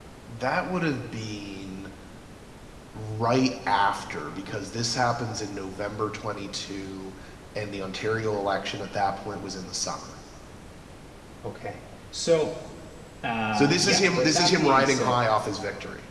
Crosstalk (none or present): present